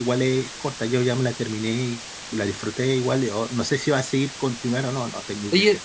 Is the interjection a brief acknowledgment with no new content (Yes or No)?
No